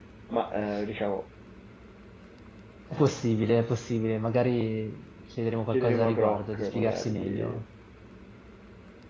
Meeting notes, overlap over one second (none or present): present